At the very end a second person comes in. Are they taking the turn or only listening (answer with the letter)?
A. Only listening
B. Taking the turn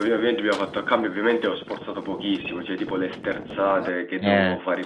A